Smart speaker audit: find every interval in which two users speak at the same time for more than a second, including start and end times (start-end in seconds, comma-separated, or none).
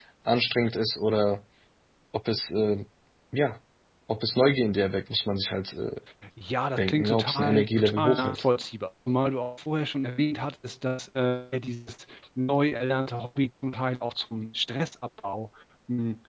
6.8-8.4